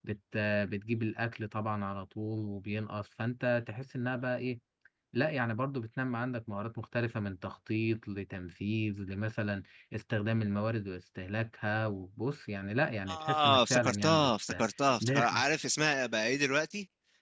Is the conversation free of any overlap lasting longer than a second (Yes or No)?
No